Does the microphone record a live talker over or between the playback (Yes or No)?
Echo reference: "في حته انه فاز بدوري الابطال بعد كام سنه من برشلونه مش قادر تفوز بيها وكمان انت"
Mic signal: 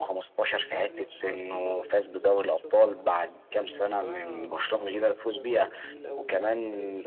Yes